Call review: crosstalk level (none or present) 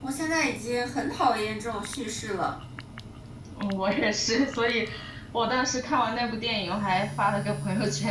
none